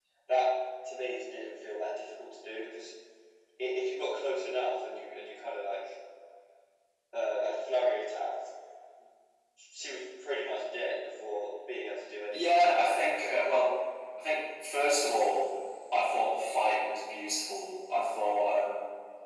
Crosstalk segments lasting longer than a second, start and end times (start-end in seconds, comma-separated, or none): 12.3-13.6